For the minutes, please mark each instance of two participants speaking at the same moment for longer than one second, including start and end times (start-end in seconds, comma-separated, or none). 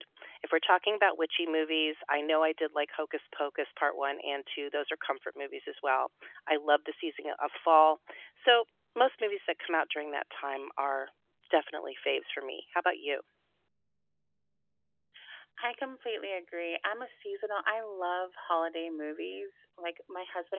none